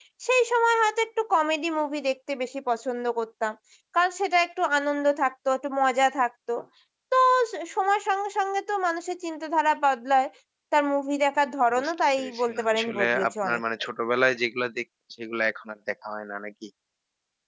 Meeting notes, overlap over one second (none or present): present